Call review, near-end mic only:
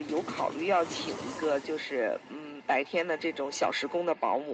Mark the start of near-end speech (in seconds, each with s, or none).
none